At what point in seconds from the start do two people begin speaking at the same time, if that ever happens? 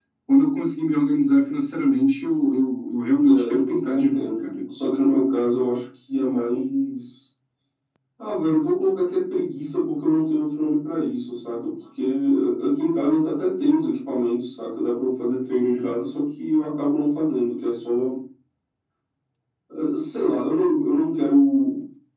3 s

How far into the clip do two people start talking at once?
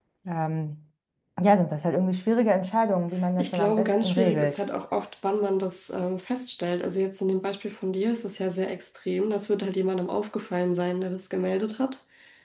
3 s

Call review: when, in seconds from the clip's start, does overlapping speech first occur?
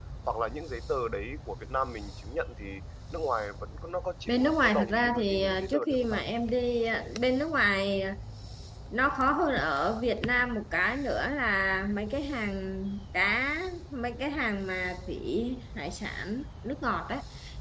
4 s

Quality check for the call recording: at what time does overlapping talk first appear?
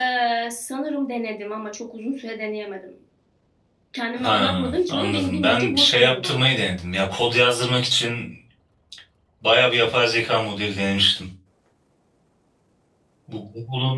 4 s

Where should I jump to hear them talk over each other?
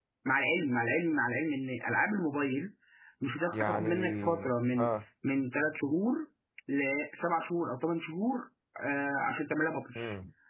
4 s

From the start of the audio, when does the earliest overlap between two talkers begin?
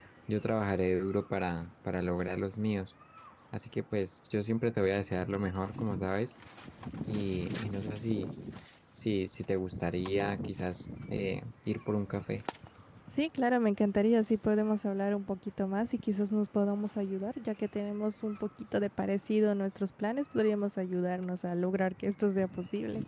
none

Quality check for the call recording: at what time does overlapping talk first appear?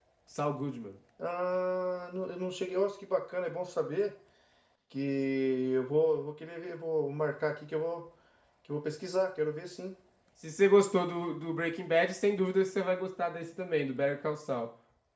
none

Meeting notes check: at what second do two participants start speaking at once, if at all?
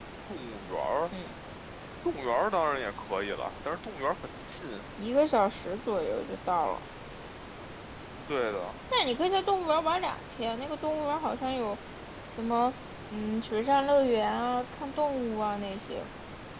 none

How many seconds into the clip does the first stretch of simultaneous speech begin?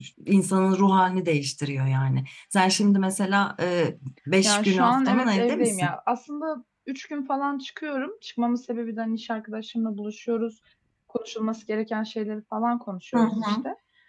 4 s

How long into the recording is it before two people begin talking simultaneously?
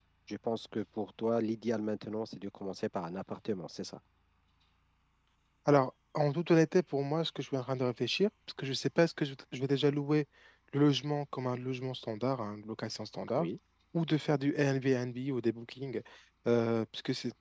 none

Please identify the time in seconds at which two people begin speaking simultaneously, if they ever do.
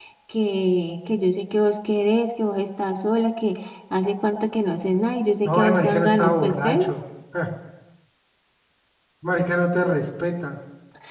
5 s

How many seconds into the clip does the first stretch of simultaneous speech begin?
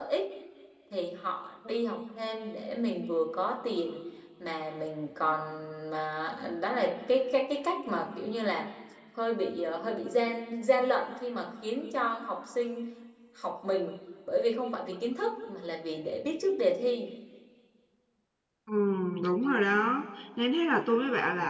none

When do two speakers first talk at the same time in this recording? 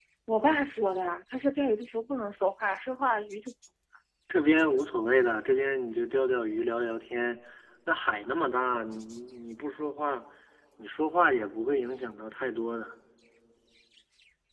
none

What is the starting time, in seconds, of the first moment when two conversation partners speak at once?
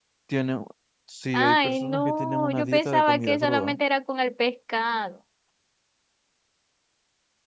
1 s

